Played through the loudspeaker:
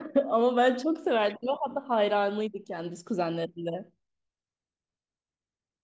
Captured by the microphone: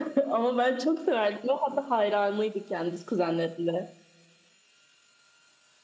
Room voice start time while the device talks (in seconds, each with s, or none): none